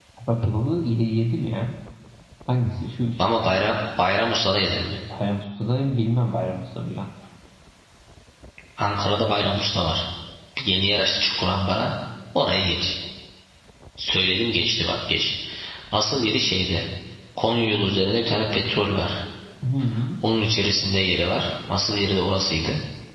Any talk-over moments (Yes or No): No